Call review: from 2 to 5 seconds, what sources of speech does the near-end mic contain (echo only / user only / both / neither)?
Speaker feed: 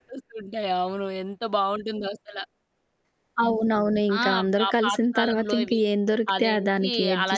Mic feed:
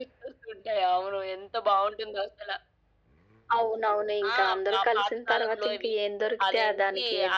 echo only